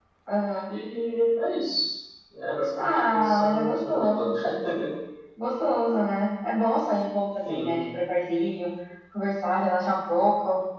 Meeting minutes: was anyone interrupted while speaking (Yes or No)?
Yes